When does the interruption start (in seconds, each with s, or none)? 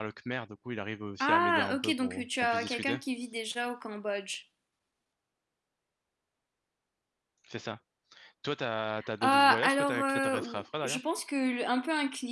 1.2 s